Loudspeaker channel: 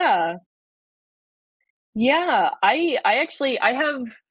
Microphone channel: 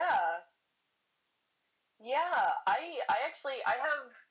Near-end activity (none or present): none